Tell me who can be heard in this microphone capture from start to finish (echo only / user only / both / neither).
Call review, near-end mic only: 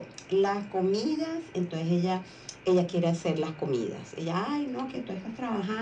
echo only